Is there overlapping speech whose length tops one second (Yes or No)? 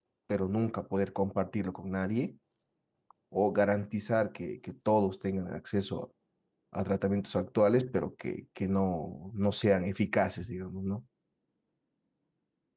No